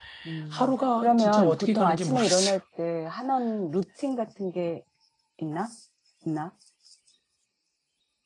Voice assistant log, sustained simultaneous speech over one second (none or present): present